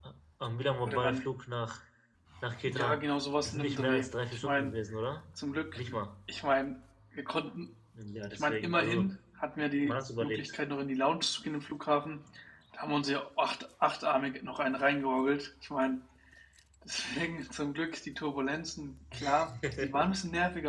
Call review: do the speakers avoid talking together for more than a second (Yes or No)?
No